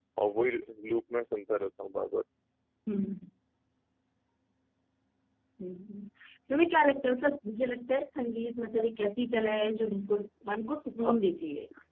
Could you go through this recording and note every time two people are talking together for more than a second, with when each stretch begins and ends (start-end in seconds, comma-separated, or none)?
none